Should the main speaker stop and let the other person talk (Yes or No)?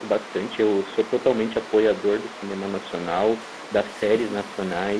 No